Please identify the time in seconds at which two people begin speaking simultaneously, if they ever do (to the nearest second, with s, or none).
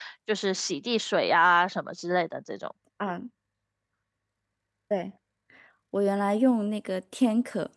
none